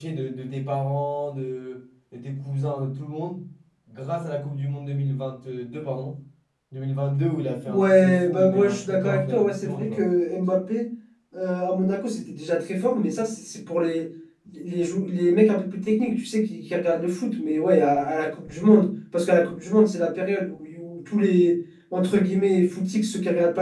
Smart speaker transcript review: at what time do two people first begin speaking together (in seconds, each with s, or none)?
7.7 s